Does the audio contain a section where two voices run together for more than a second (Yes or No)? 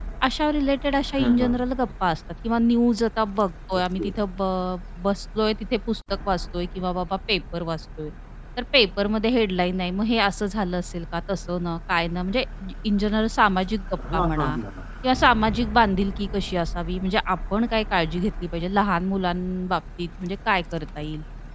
No